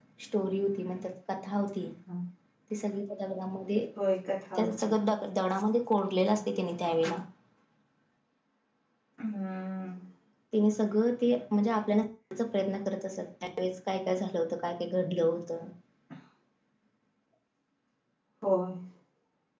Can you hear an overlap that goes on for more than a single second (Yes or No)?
No